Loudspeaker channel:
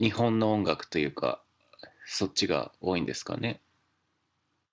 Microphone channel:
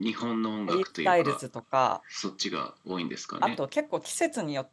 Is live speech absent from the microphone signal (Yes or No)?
No